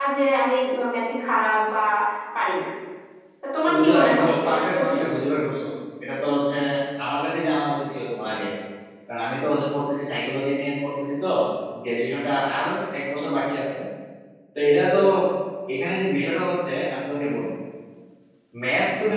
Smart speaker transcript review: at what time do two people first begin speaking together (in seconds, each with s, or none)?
3.6 s